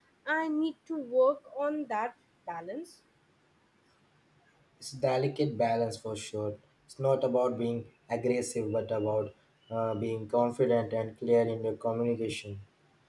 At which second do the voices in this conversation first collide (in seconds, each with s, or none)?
none